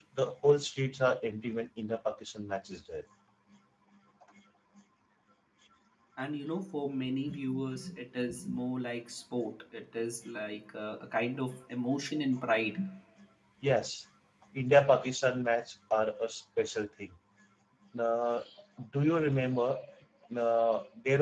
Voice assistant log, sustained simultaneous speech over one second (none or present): none